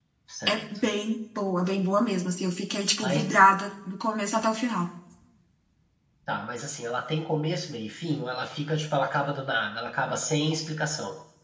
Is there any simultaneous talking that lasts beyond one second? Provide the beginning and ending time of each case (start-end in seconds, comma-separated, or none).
none